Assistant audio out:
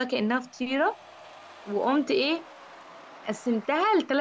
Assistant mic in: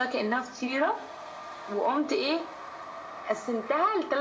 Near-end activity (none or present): none